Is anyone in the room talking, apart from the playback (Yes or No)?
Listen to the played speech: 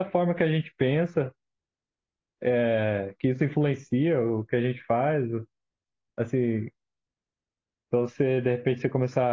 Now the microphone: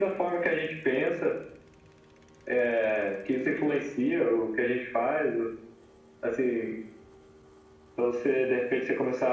No